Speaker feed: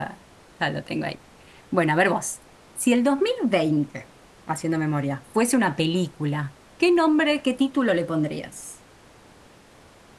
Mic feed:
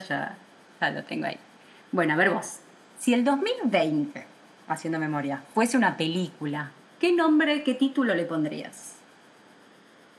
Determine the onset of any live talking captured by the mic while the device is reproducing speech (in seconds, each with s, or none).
none